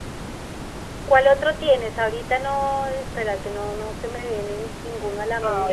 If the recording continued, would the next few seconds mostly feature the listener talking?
Yes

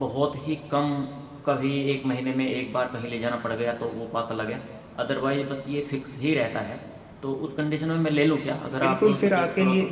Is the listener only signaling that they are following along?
No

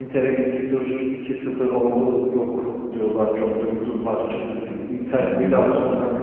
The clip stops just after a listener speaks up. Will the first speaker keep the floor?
Yes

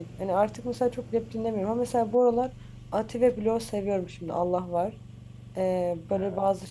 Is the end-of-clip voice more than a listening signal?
No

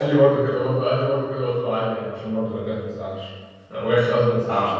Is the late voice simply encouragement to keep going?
No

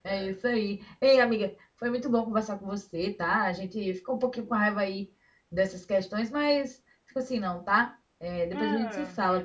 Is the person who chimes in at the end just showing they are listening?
No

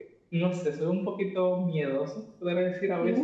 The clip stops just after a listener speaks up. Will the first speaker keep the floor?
Yes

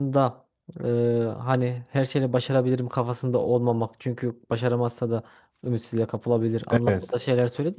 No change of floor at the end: Yes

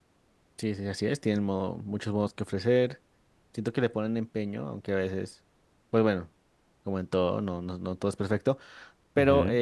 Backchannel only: Yes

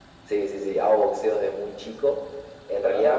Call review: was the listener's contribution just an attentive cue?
Yes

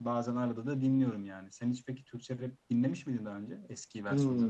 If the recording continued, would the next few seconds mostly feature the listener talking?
Yes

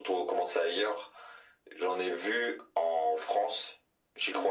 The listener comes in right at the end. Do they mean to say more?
No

